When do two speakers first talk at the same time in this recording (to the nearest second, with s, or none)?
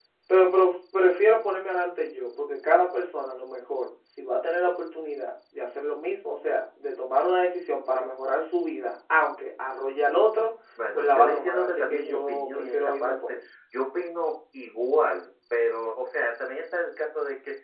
11 s